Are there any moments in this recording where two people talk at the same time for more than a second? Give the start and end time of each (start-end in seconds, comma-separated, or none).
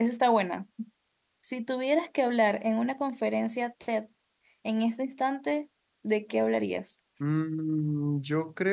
none